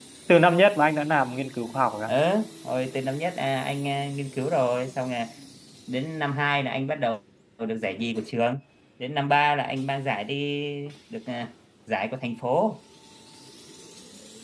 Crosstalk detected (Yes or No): No